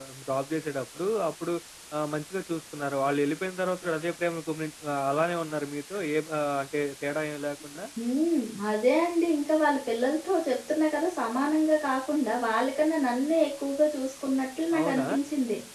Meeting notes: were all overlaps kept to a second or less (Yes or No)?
Yes